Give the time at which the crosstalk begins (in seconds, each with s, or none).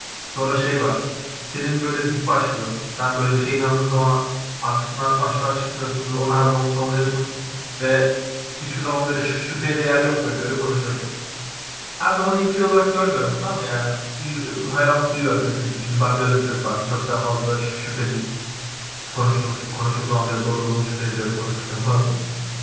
none